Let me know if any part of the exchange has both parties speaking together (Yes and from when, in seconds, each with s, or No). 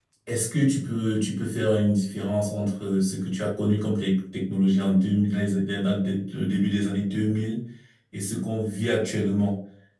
No